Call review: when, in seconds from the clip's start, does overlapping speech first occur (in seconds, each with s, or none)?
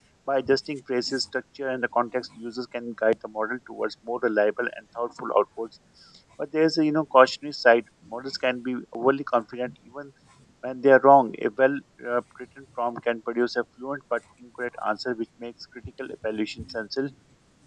none